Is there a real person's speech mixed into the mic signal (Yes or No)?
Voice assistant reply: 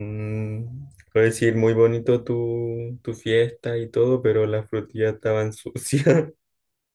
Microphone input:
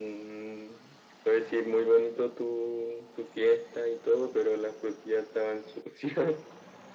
No